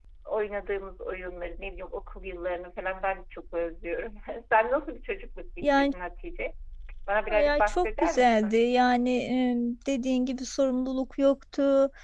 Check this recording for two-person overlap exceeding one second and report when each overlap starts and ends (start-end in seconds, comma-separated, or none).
7.3-8.6